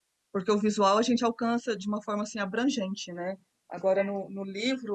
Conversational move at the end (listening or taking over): listening